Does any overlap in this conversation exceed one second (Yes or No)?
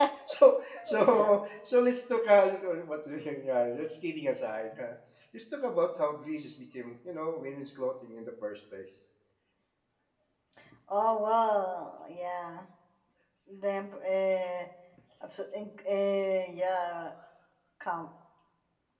No